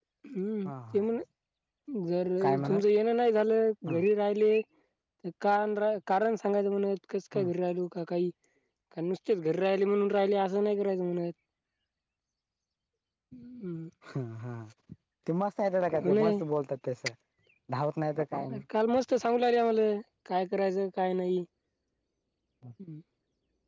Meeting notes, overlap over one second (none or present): none